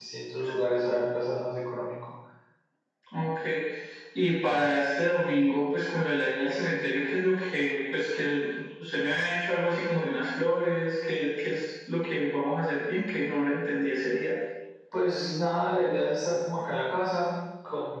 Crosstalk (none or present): none